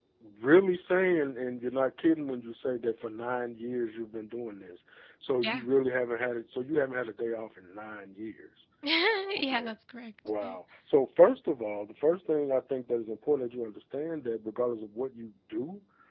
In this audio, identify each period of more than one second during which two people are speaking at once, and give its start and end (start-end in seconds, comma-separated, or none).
none